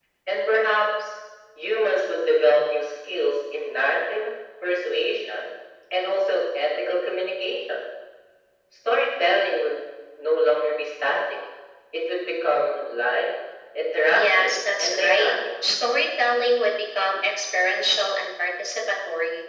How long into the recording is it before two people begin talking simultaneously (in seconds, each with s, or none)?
14.1 s